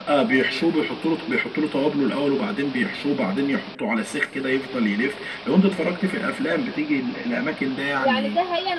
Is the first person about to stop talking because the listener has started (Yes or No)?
Yes